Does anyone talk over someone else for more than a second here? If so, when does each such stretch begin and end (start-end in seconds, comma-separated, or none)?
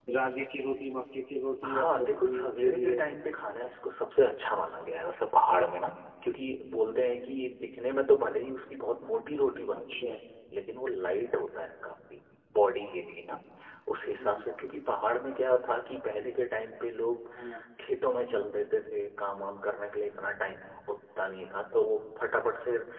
1.6-3.0